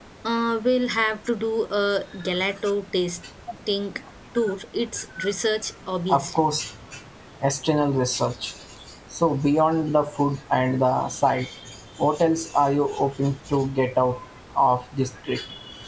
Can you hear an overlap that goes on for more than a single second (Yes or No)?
No